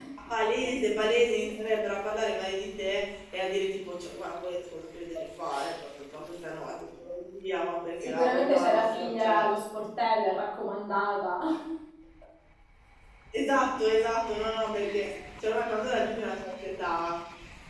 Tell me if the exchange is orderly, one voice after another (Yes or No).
No